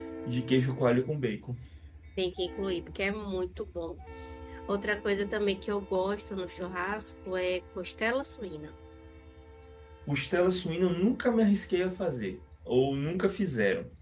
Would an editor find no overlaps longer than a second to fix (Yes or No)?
Yes